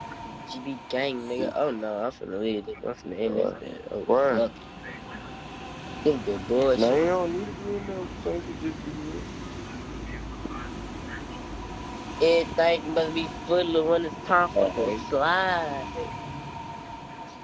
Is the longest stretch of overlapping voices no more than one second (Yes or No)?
Yes